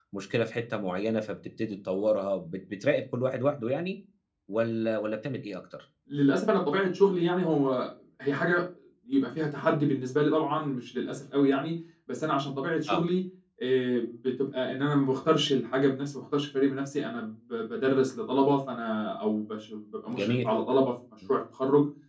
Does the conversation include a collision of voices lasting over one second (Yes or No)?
No